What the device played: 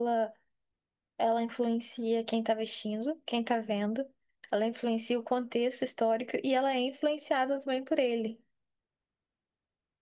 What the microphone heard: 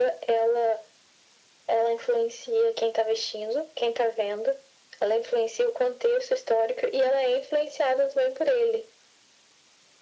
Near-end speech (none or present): none